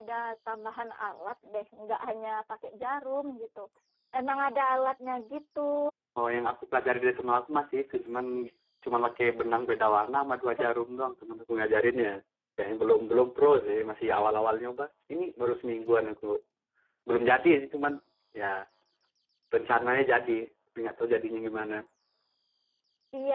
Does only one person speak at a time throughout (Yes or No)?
Yes